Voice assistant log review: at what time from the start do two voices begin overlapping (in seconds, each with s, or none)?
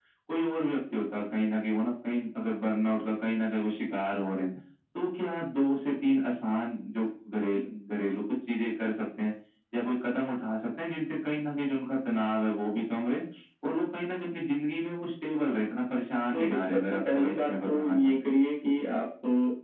16.3 s